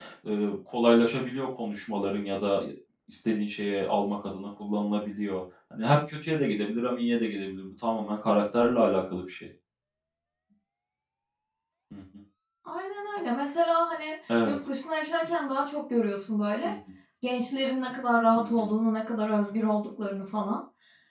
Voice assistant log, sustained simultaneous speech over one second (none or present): none